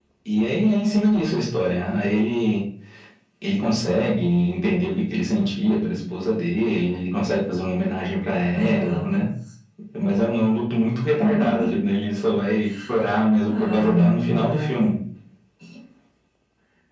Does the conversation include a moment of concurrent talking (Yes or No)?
Yes